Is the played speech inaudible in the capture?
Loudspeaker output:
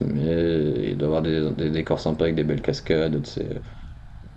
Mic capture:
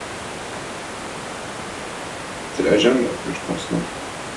Yes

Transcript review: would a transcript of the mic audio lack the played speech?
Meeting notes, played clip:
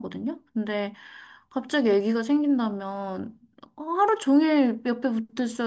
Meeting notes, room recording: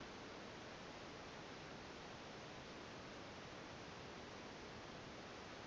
Yes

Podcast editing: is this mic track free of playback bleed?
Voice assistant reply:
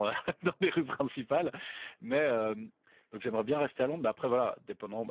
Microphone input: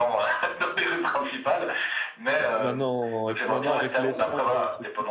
No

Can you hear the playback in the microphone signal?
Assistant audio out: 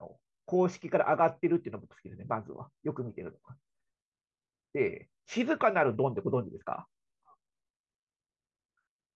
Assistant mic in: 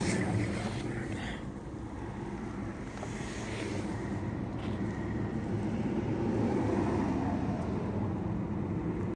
No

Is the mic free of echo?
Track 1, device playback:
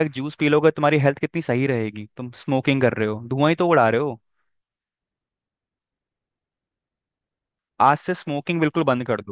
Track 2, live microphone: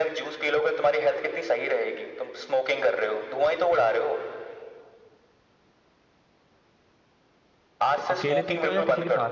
No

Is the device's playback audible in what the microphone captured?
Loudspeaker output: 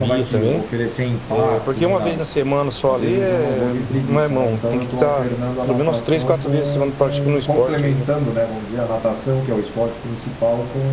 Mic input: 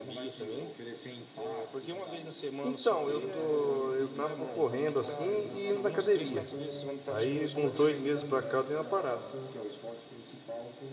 Yes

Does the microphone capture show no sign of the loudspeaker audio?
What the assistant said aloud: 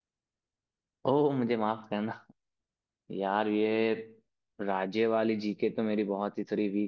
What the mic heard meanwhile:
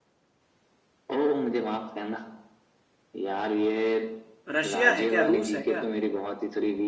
No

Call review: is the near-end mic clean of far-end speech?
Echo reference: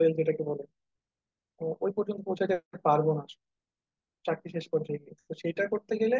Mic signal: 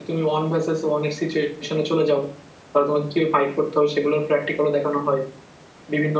Yes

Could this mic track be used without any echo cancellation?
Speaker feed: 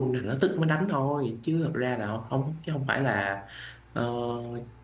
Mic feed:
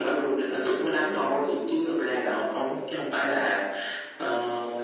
No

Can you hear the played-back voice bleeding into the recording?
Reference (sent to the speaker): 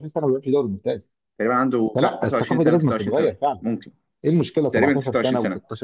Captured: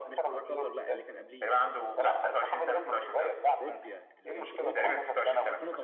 Yes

